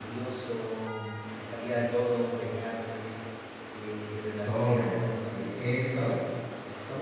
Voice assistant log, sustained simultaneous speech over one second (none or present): present